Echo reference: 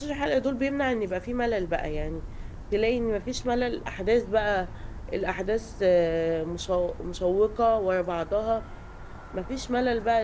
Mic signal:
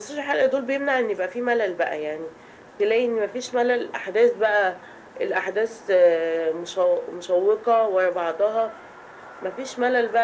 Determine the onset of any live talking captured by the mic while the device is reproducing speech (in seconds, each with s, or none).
none